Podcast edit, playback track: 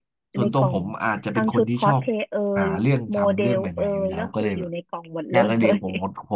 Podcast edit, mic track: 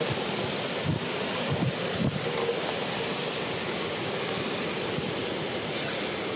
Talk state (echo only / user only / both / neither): neither